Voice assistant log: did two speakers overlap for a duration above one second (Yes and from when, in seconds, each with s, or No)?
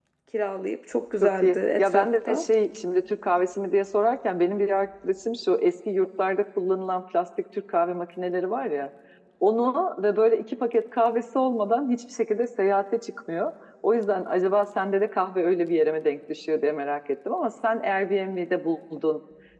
Yes, from 1.2 s